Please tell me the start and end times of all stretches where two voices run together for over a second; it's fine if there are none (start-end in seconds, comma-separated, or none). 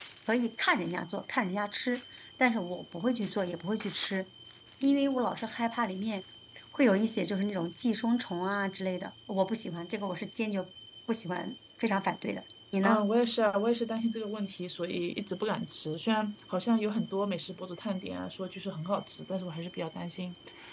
none